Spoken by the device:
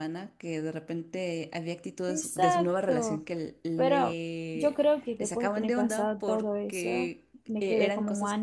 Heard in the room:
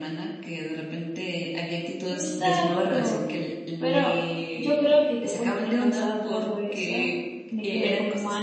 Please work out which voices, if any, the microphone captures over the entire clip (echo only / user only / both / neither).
echo only